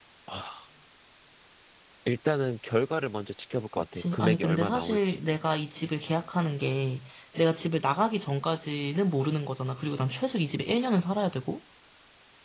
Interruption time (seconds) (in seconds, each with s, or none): 3.7 s